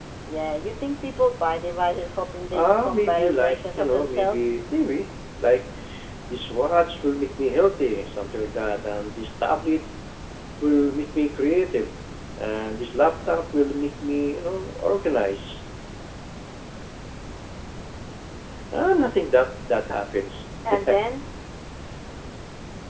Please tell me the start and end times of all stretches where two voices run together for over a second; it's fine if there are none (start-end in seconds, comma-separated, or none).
2.5-4.4